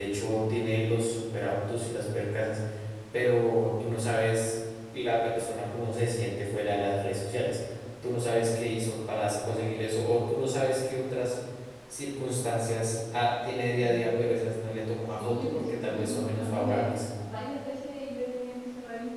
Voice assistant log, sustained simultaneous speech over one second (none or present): present